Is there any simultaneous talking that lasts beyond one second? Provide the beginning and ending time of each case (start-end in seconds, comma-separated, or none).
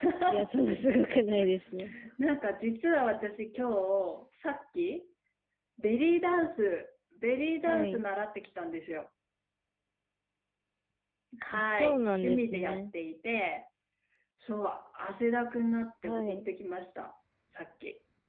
11.5-12.8